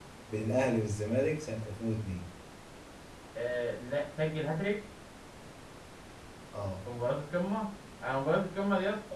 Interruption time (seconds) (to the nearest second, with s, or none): none